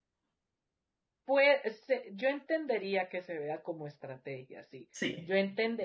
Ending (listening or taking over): listening